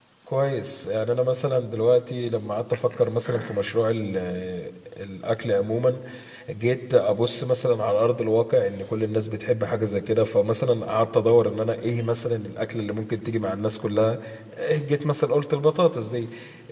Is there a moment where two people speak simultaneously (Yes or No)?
No